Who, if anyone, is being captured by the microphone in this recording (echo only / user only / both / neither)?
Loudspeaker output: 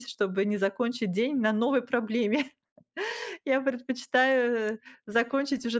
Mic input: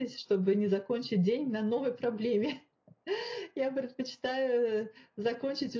echo only